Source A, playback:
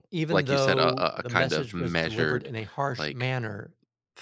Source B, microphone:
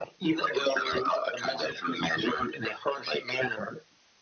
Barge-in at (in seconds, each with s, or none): none